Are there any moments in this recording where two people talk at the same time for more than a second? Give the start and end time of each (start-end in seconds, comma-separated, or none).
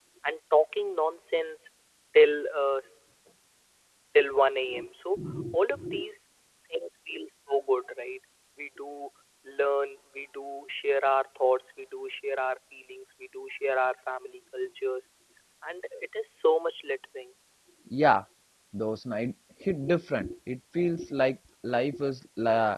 none